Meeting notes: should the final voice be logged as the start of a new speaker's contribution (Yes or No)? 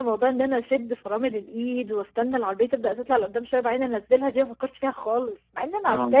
Yes